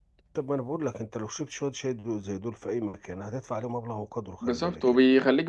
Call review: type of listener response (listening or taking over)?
taking over